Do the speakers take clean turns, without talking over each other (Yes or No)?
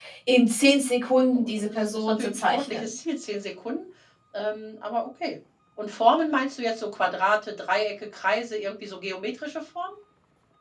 No